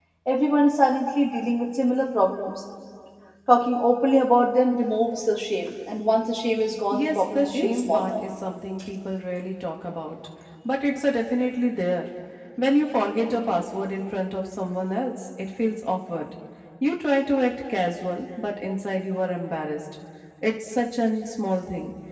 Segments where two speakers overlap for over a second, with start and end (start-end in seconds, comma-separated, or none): 6.9-8.2